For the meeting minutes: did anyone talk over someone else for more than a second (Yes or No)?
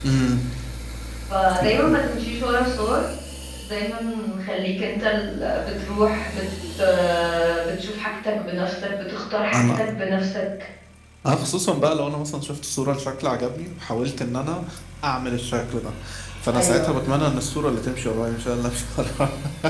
No